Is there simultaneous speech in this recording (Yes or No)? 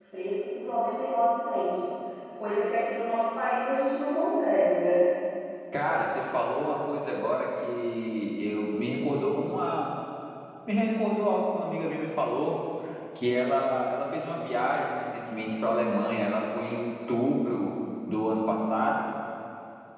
No